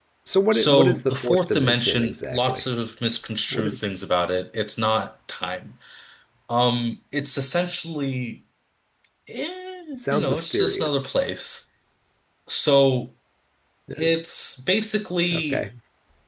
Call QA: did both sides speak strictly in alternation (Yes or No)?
No